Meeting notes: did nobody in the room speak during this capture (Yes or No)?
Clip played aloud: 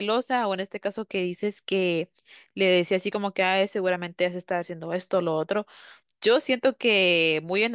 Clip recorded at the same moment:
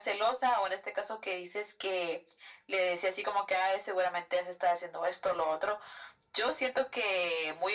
Yes